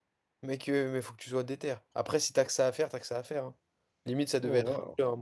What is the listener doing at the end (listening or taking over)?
taking over